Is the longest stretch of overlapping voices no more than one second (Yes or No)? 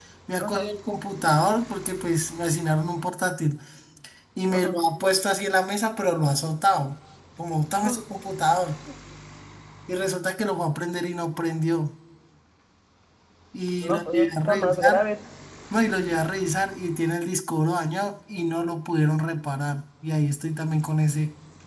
No